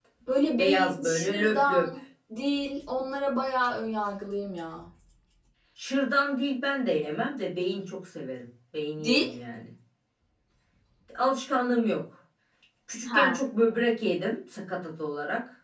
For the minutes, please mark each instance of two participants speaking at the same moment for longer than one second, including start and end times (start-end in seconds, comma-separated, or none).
0.6-1.9